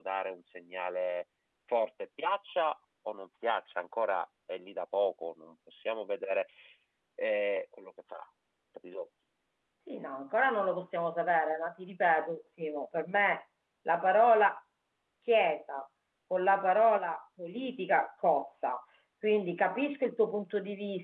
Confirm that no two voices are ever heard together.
Yes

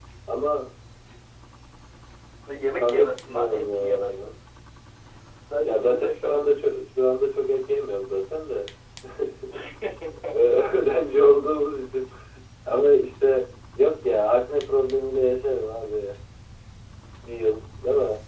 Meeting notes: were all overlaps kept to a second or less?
No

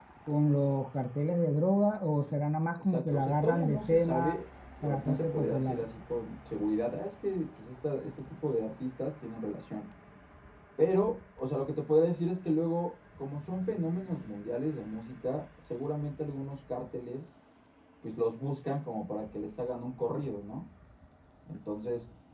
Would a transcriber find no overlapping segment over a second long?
No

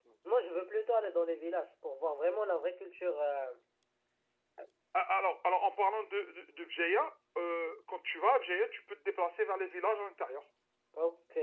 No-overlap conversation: Yes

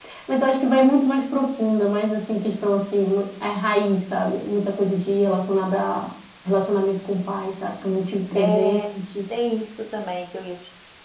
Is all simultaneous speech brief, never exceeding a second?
Yes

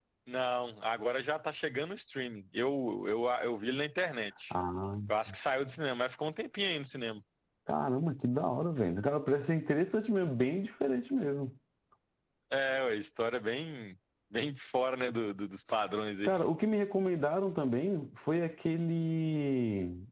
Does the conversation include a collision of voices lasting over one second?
No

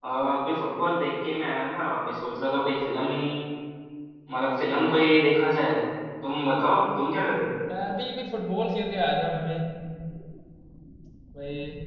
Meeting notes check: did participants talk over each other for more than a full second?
No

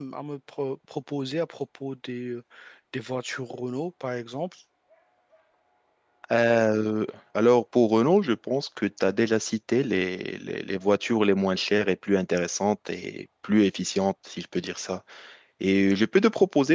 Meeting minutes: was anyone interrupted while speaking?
No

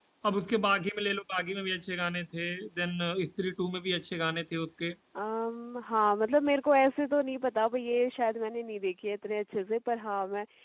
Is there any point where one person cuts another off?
No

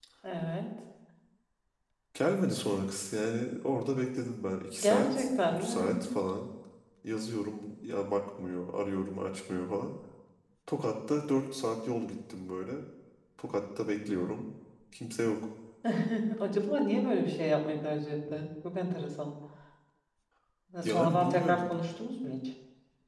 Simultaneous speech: Yes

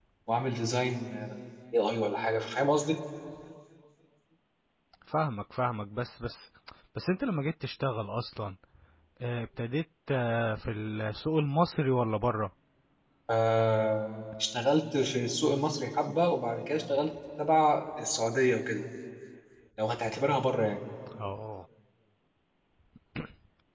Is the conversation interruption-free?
Yes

